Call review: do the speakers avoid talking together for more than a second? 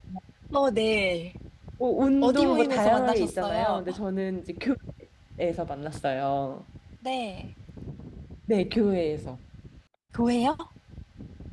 No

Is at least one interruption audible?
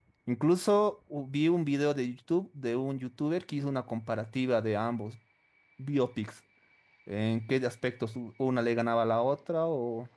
No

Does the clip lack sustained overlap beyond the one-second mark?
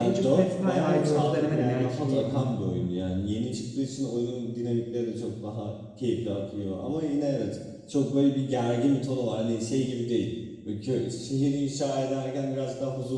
No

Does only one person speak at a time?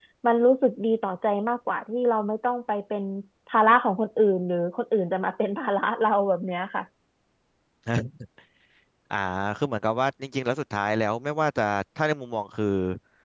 Yes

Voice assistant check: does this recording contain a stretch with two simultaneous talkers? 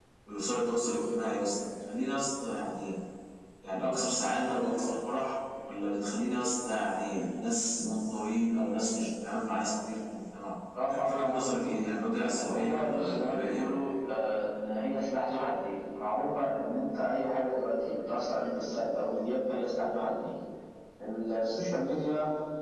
Yes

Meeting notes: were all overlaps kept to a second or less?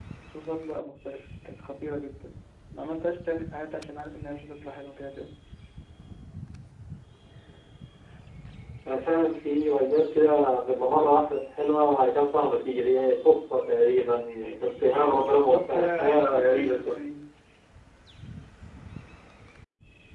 No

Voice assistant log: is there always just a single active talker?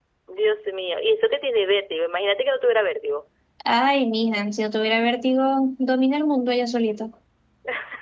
Yes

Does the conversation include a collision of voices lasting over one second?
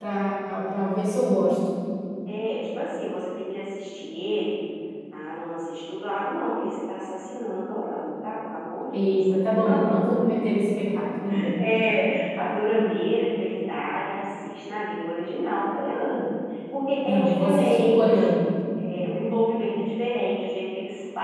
Yes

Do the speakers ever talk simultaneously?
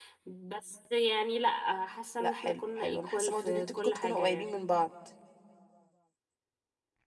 Yes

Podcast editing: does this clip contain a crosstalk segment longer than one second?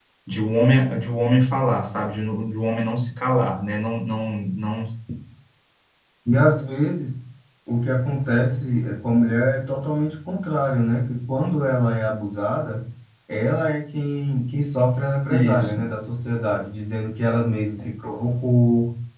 No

